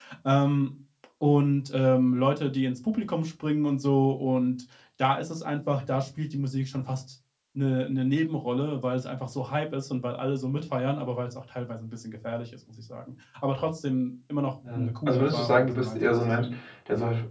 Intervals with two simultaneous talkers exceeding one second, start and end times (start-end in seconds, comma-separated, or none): 14.8-16.5